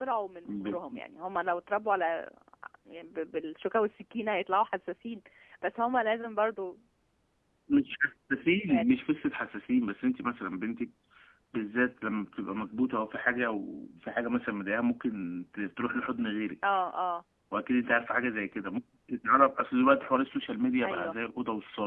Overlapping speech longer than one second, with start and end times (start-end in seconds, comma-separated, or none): none